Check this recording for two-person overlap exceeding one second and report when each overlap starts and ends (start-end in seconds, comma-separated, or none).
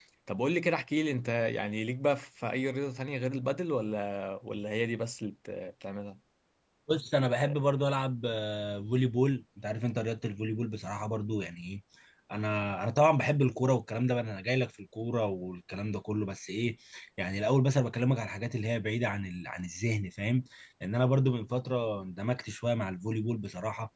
none